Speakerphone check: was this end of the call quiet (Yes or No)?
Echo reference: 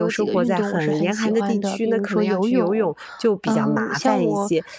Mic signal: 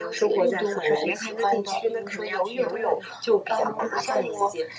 No